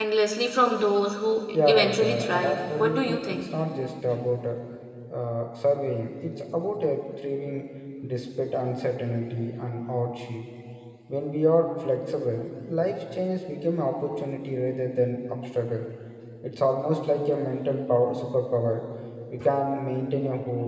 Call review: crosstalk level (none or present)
present